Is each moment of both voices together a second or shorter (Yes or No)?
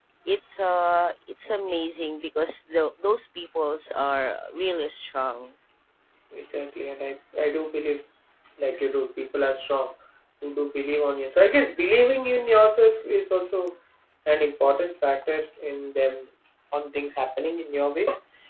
Yes